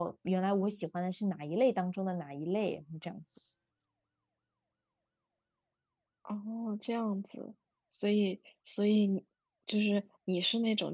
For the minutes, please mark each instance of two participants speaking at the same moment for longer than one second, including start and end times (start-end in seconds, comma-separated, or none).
none